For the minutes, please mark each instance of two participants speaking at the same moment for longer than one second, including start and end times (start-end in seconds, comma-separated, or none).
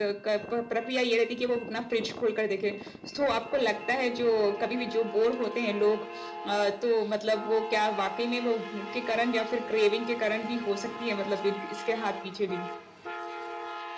none